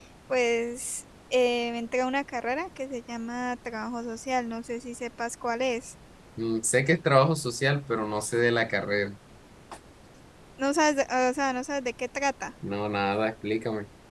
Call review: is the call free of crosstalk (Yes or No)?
Yes